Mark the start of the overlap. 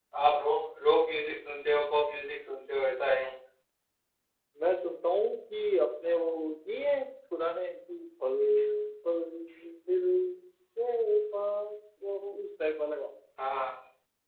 none

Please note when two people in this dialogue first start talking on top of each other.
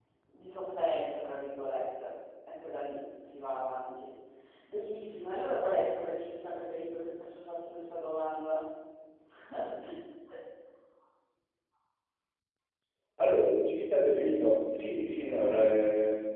none

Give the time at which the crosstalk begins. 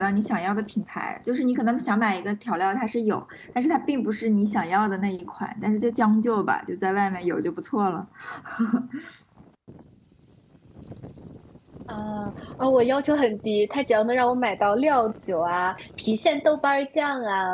none

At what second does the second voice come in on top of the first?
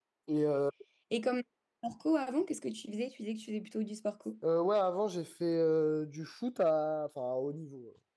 none

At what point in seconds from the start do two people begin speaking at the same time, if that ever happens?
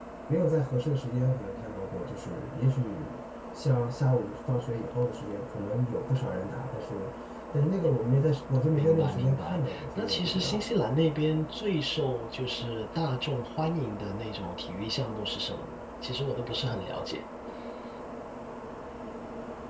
8.8 s

